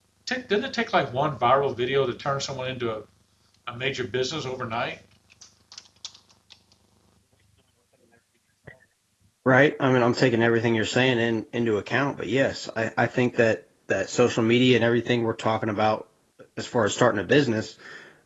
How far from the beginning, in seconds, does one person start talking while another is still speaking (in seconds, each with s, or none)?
none